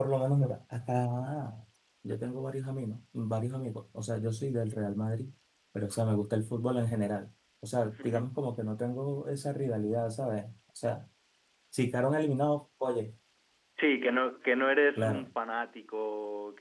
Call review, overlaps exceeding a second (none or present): none